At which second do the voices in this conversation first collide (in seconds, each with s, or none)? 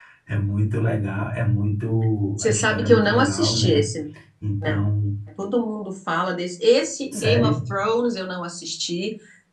2.4 s